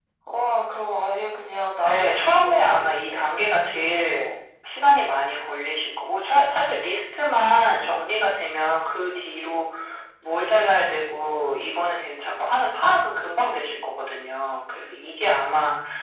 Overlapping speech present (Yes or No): Yes